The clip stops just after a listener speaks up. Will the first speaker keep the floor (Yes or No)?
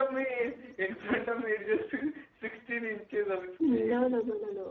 No